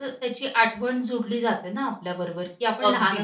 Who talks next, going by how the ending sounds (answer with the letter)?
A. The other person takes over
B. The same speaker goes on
B